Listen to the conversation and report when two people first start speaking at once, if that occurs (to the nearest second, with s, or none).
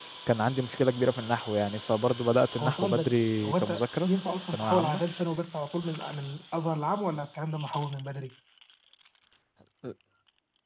3 s